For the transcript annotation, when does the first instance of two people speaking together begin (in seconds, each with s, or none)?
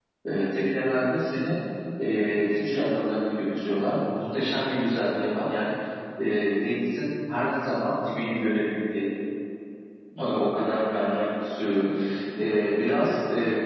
none